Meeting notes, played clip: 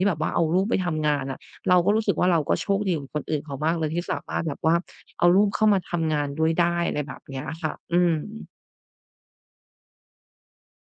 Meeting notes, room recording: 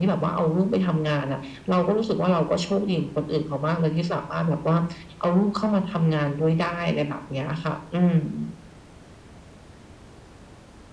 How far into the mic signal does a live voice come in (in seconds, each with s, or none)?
none